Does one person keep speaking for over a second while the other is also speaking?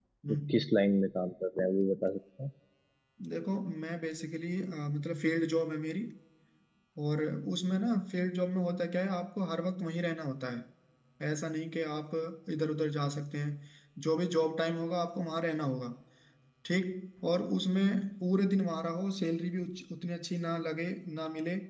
No

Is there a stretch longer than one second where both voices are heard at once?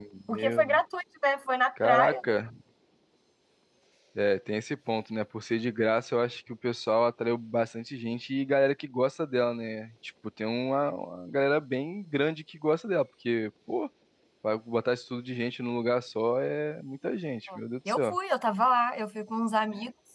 No

